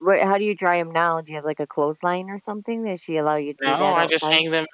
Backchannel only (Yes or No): No